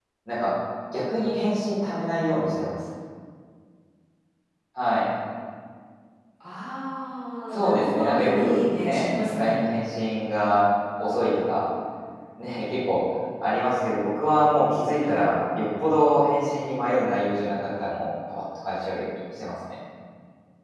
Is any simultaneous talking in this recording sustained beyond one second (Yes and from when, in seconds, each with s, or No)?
Yes, from 7.5 s